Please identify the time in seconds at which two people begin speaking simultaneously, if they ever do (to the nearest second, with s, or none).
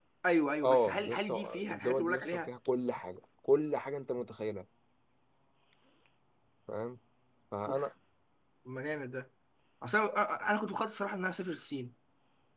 1 s